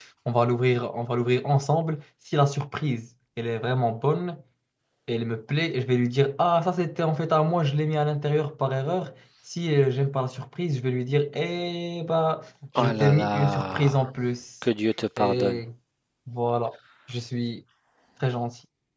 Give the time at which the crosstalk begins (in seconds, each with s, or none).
12.8 s